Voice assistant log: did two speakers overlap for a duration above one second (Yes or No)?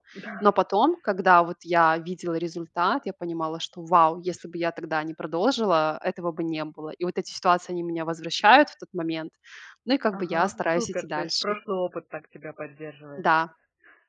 Yes